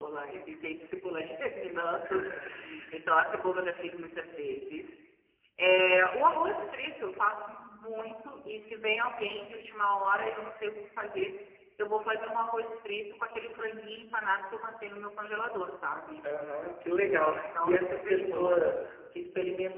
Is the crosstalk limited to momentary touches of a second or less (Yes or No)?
No